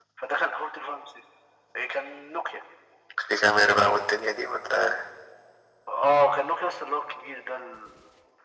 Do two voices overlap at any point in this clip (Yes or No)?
No